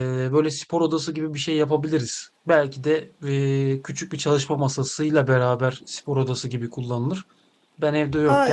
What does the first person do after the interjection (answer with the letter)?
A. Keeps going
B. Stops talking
A